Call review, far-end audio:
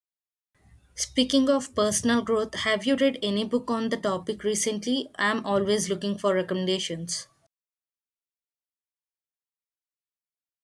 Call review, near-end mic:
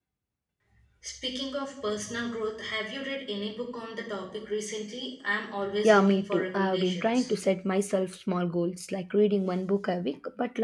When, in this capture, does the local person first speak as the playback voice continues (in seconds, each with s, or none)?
5.8 s